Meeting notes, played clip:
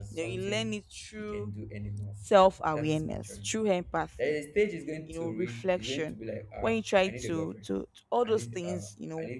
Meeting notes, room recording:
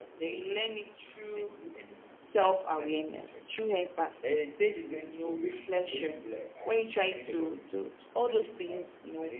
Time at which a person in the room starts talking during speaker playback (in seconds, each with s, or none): none